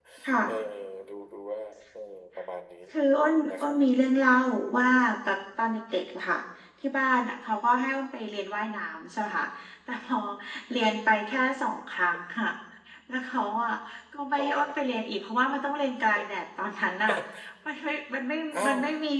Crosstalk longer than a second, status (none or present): none